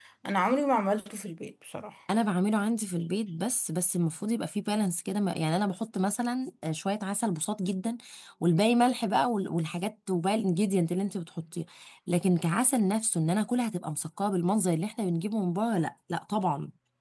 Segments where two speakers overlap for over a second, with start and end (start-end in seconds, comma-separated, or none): none